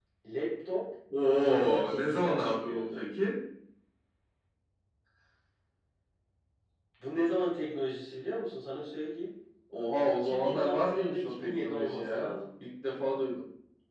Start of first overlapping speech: 1 s

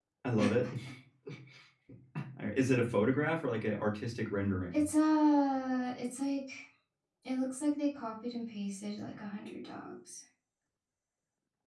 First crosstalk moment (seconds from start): none

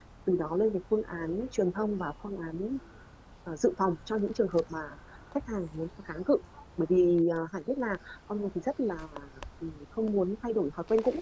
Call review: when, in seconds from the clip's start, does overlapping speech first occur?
none

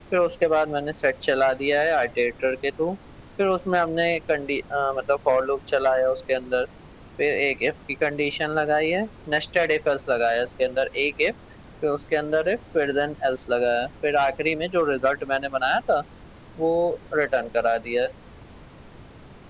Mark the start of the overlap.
none

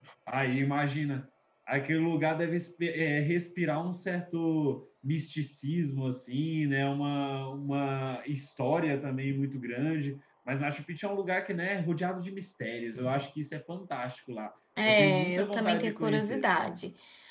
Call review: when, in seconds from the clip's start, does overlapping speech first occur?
15 s

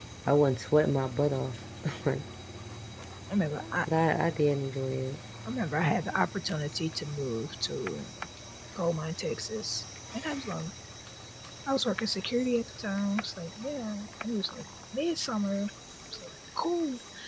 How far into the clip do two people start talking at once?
none

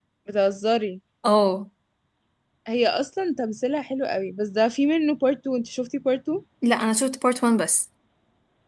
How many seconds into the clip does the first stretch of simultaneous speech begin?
none

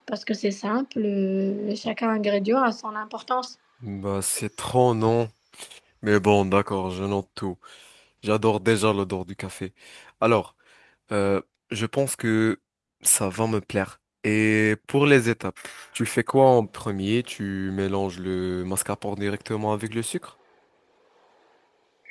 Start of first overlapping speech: none

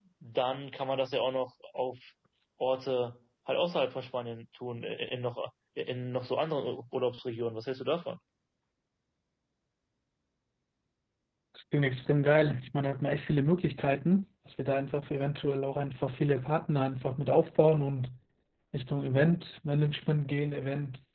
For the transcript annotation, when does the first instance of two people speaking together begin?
none

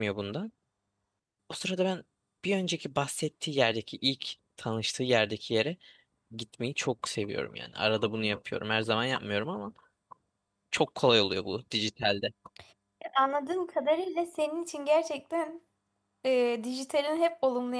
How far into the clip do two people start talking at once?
none

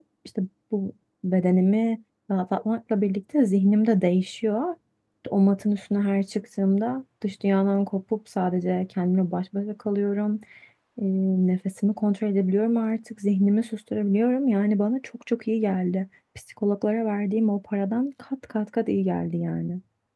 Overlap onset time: none

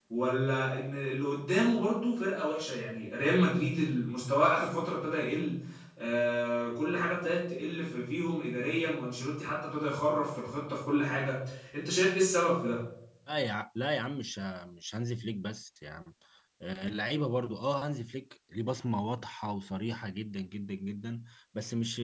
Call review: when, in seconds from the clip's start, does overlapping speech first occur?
none

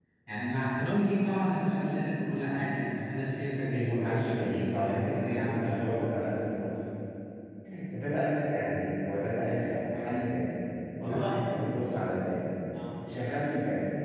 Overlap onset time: 4 s

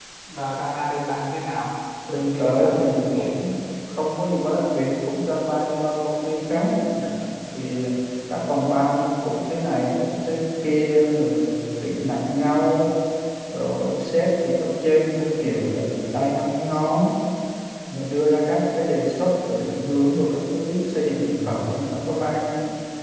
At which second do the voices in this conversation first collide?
2 s

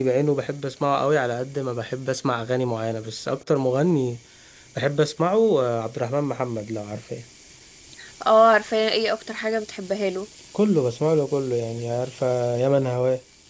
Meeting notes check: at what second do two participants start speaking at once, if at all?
none

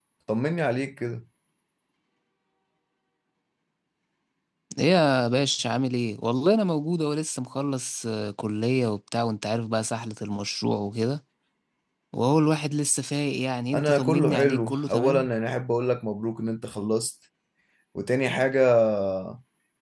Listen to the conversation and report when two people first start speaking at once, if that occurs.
14 s

